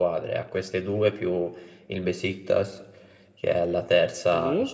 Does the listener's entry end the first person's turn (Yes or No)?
No